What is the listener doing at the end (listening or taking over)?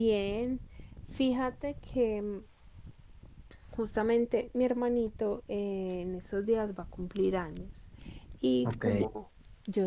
listening